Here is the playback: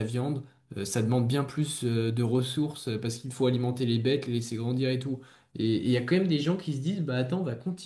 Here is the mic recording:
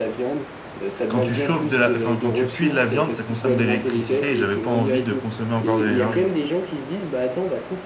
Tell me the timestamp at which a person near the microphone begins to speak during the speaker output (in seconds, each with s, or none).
1.1 s